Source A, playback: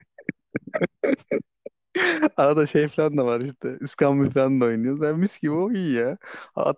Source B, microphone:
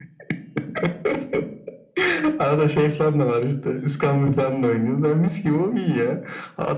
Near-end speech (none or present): none